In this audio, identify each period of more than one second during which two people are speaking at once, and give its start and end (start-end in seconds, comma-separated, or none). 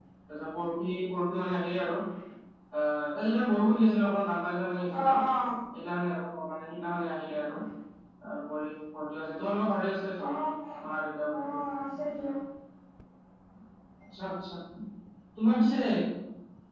none